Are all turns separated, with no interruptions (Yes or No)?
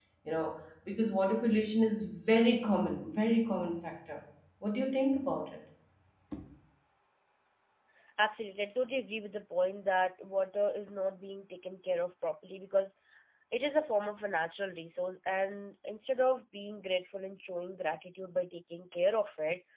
Yes